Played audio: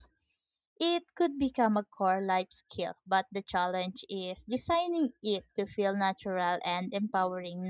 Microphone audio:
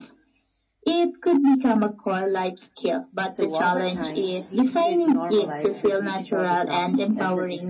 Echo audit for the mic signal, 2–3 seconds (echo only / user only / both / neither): echo only